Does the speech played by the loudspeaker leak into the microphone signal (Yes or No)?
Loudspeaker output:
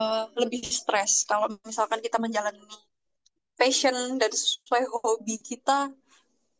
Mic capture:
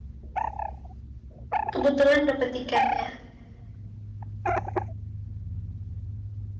No